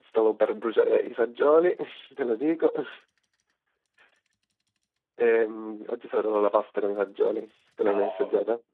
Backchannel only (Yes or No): No